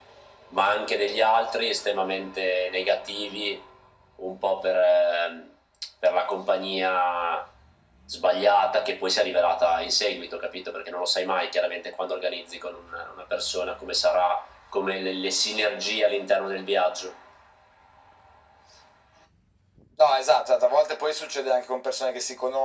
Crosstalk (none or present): none